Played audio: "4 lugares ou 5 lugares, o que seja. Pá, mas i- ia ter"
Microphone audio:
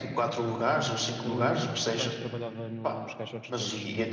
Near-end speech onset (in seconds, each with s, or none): 1.2 s